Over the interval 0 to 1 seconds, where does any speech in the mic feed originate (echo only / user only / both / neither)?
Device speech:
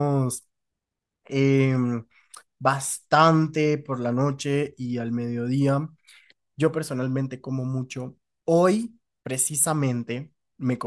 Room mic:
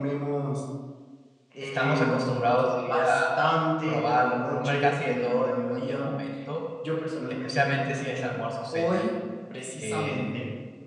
echo only